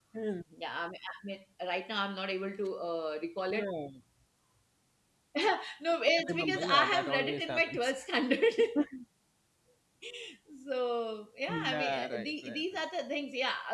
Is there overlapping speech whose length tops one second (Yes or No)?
Yes